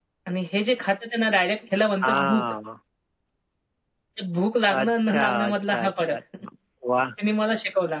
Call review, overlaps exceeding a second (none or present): present